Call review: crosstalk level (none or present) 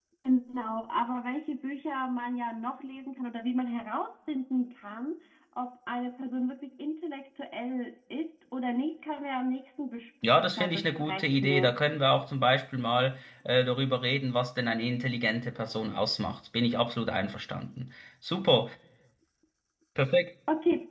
present